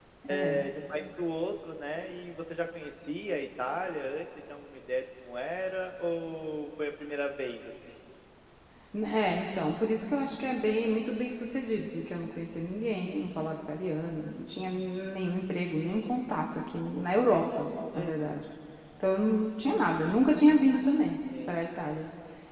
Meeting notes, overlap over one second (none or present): none